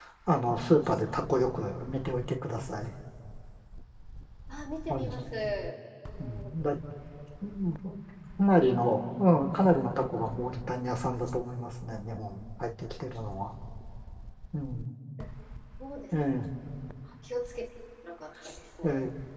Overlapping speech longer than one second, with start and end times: none

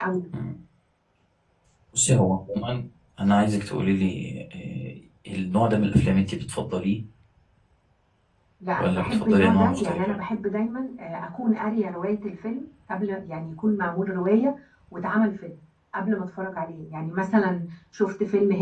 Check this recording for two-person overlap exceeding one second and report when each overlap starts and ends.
8.8-10.0

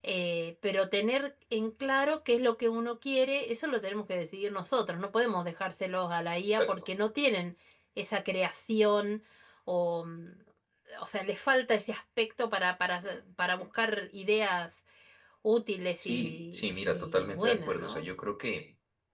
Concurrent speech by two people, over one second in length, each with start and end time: 16.0-18.1

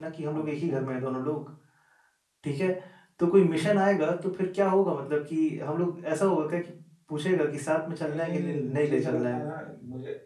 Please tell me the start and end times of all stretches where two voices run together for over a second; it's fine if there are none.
8.0-9.4

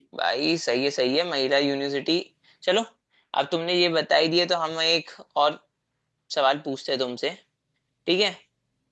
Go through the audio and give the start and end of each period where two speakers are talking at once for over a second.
none

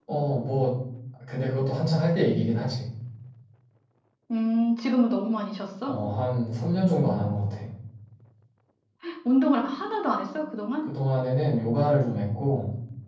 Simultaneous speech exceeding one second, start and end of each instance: none

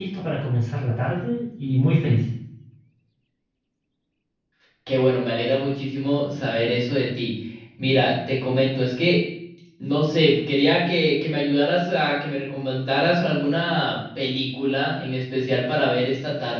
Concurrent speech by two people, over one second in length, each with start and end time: none

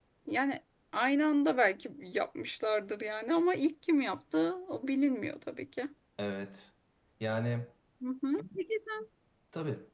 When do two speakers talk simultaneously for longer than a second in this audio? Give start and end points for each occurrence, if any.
none

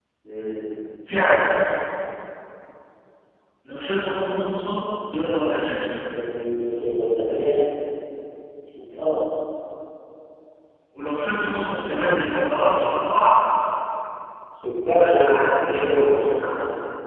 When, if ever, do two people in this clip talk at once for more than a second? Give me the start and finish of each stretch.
14.9-16.3

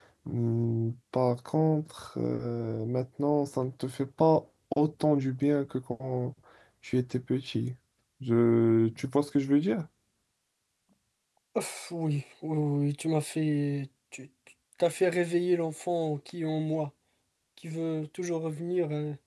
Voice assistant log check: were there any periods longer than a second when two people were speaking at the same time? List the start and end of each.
none

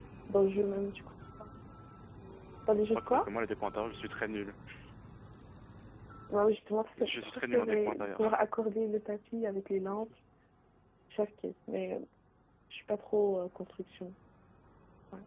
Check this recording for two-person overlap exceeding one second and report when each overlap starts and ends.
7.0-8.4

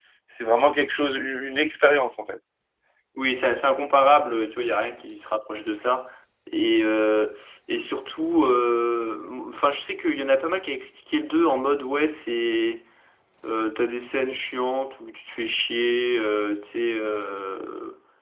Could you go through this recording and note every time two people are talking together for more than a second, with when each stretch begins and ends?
none

